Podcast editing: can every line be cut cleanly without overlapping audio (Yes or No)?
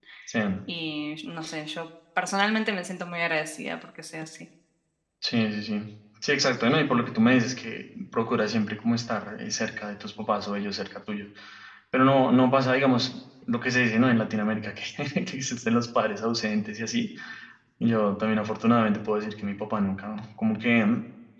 Yes